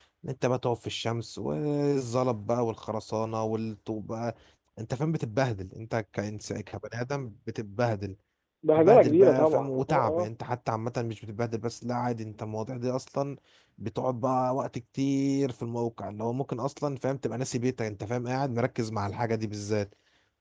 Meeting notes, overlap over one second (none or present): present